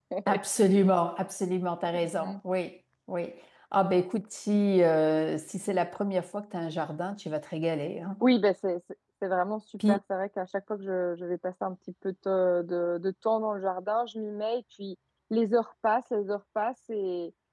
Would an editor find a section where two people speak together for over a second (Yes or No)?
No